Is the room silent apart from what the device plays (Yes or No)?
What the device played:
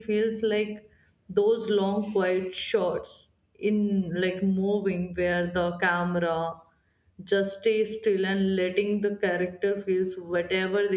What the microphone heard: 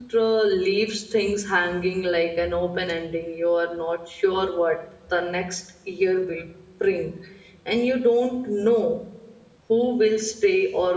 No